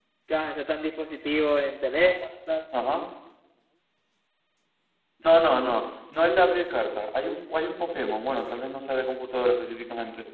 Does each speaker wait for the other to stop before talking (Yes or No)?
Yes